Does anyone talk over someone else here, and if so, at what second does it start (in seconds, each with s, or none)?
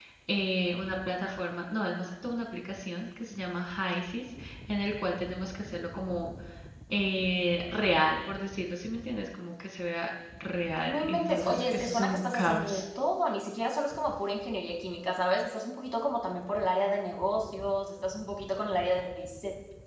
10.8 s